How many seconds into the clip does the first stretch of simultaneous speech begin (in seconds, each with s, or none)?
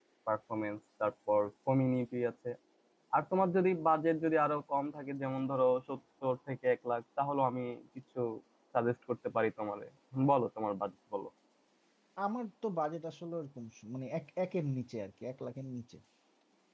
none